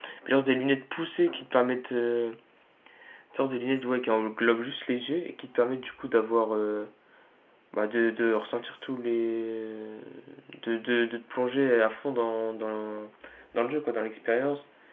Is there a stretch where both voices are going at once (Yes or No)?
No